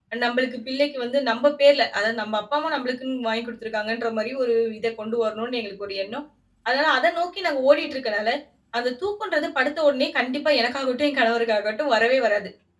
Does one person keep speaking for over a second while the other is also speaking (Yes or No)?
No